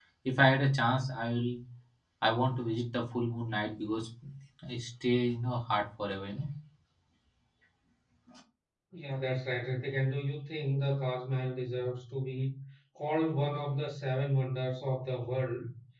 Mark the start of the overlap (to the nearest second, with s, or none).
none